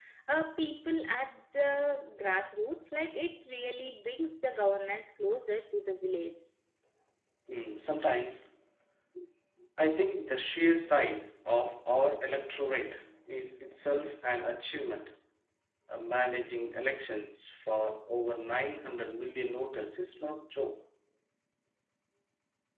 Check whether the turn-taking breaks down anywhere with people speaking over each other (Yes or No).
No